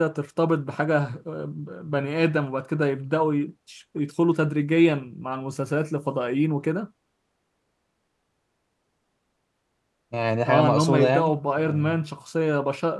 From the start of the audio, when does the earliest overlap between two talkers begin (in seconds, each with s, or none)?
10.5 s